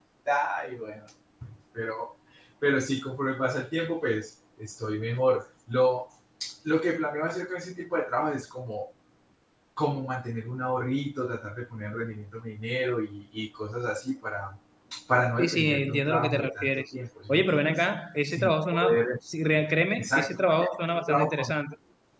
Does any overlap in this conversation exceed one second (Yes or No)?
Yes